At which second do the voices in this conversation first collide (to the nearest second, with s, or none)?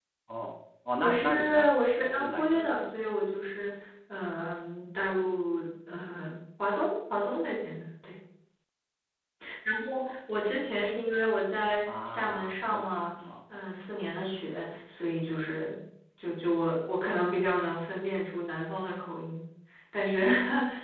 1 s